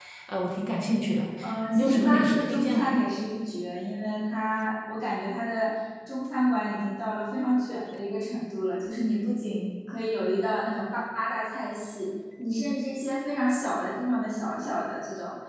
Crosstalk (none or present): present